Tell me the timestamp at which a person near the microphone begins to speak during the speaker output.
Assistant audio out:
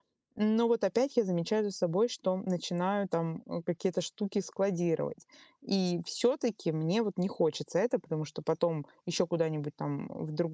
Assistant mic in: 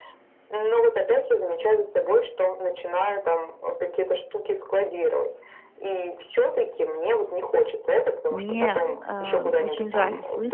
8 s

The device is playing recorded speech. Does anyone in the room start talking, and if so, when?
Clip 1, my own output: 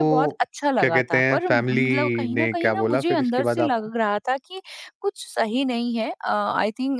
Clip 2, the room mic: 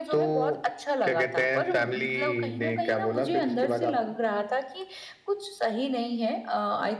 none

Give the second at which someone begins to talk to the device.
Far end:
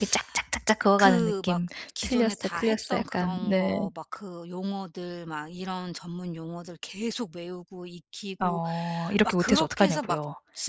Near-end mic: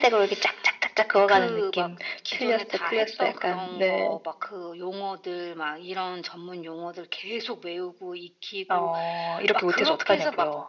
none

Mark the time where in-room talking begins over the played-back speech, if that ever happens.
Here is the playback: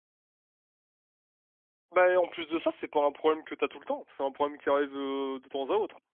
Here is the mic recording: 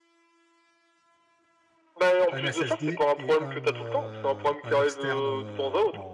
2 s

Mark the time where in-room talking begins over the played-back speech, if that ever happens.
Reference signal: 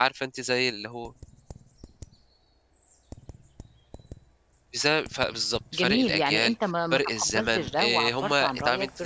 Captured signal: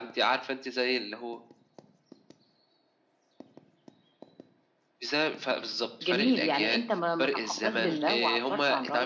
8 s

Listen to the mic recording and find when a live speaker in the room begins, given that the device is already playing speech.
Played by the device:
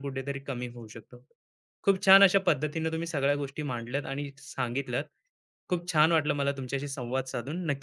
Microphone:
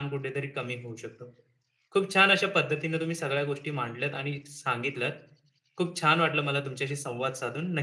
none

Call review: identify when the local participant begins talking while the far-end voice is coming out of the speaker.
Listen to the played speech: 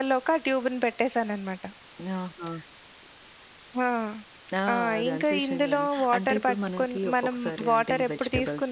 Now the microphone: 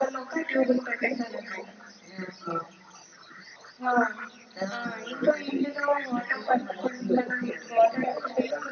none

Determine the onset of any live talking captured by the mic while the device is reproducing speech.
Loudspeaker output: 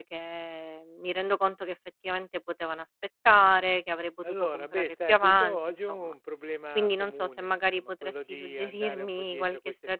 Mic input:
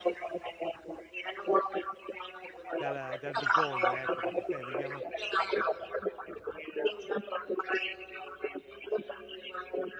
3 s

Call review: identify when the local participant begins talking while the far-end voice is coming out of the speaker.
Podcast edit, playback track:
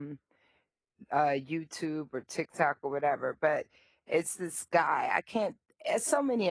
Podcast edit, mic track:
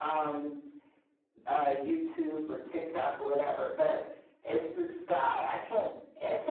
none

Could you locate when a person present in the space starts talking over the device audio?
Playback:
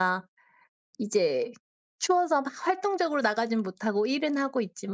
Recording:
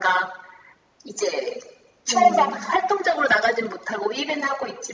2 s

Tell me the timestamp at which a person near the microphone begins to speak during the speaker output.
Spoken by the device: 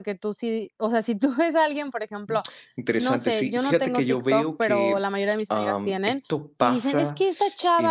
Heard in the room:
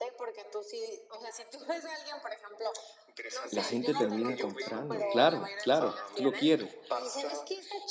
4 s

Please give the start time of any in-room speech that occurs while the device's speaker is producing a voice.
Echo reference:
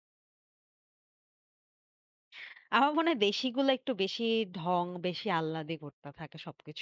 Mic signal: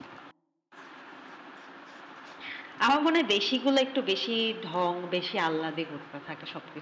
none

